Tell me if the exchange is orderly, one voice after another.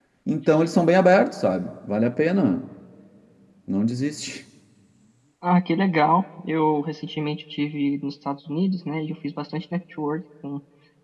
Yes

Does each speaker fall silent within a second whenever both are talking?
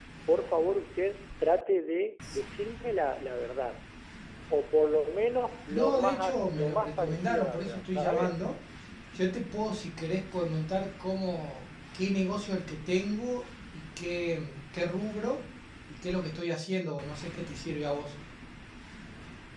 No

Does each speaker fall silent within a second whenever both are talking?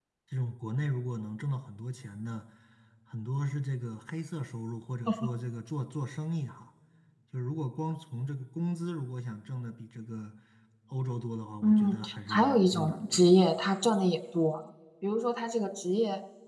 No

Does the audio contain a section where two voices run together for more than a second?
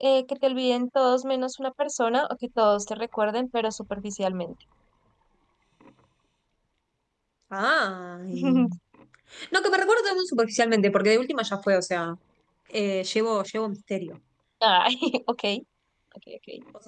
No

